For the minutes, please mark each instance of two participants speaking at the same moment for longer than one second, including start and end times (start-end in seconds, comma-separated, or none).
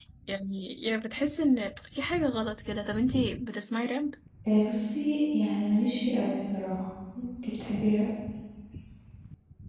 none